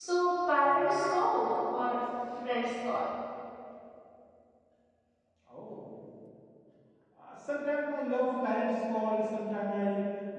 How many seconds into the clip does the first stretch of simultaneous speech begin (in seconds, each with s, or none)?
none